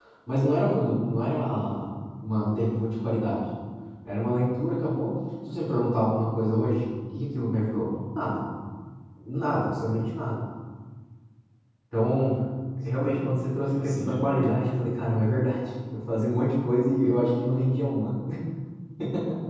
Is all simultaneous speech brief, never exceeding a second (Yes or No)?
No